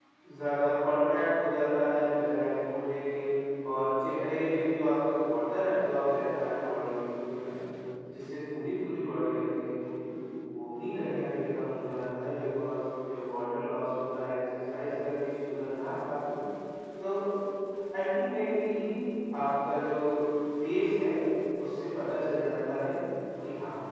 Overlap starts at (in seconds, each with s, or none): none